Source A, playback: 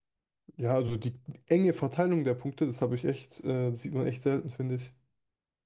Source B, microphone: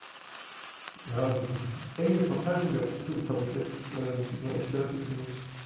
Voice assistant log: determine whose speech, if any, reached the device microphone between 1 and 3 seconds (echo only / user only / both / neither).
echo only